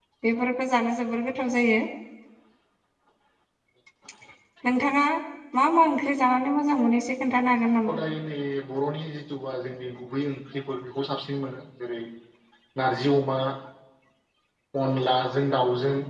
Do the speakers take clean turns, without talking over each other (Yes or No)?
Yes